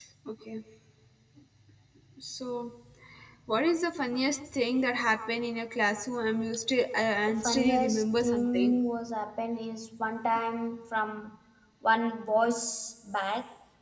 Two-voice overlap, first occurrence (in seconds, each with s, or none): 7.4 s